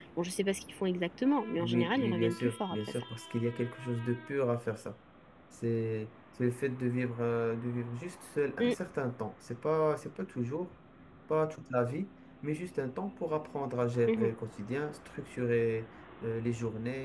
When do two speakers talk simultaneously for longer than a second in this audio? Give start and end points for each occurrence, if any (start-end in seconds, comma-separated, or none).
1.5-3.0